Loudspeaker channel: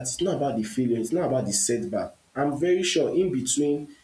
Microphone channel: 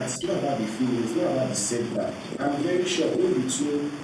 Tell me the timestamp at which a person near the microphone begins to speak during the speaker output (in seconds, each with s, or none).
none